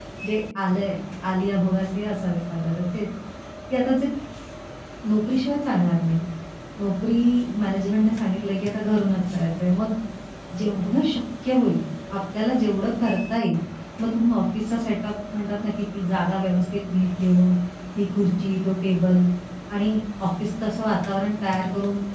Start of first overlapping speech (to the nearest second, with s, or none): none